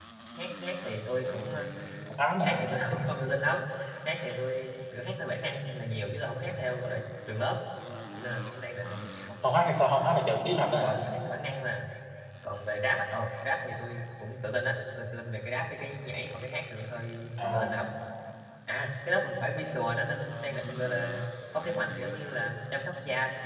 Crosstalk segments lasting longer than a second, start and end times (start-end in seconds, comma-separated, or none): none